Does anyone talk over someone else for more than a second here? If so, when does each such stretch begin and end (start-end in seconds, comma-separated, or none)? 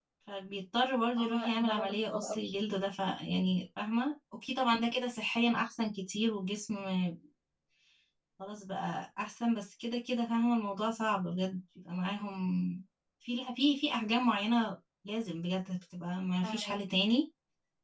1.2-2.4